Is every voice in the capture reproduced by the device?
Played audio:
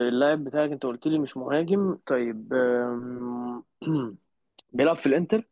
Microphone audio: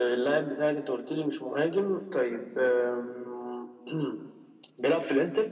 Yes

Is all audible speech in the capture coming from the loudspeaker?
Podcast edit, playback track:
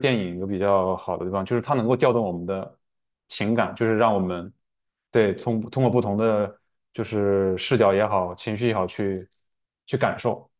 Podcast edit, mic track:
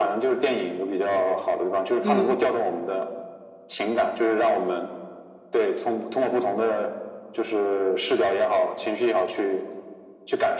No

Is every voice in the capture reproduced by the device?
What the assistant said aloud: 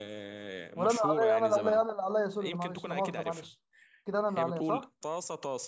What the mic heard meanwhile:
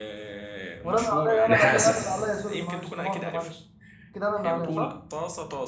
No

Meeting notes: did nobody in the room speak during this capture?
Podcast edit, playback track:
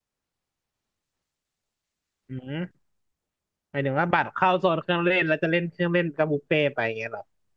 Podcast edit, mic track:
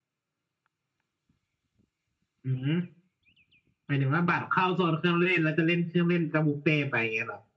Yes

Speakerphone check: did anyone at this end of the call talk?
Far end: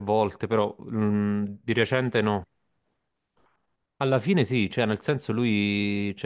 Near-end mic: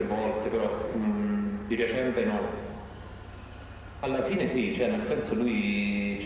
No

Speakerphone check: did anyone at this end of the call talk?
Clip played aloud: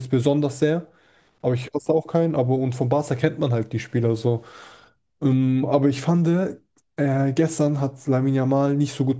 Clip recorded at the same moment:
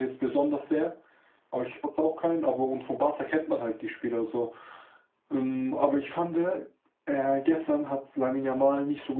No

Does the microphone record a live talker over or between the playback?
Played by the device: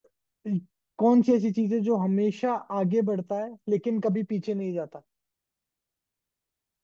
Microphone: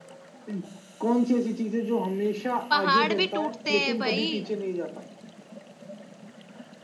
Yes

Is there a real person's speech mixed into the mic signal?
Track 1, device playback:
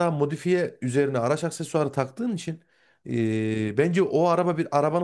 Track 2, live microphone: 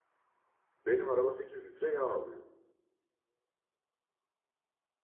Yes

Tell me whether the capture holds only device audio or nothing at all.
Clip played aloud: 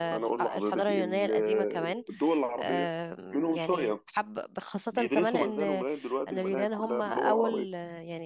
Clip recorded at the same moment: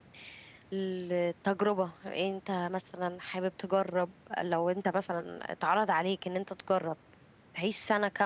No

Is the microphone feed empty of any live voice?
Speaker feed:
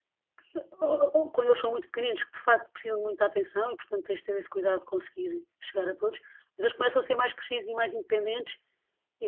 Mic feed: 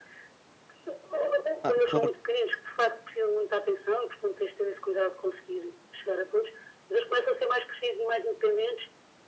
No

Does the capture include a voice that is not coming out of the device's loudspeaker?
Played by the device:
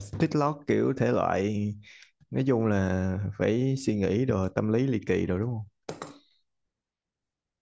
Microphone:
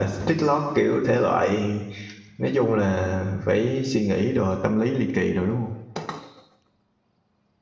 No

